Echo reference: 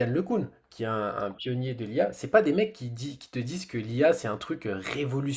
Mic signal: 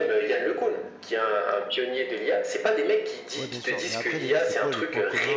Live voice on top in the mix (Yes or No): No